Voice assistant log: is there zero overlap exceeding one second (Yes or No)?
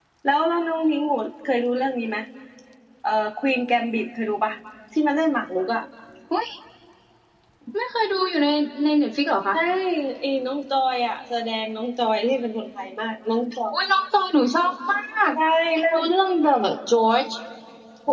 Yes